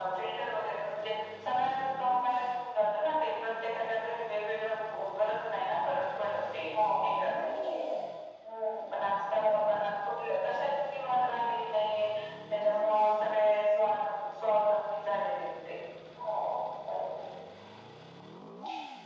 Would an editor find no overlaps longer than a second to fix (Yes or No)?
Yes